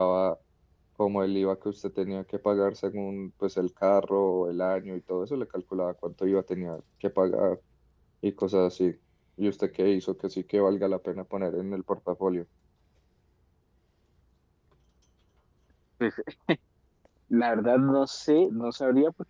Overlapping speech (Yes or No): No